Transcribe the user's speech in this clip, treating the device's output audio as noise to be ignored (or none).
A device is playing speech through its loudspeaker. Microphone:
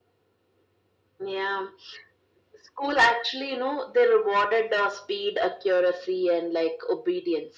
none